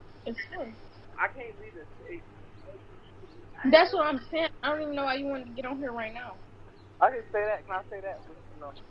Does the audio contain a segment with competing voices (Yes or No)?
No